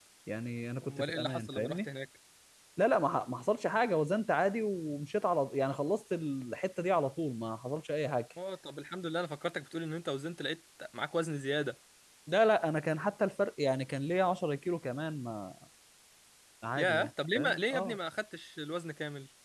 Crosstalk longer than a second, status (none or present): present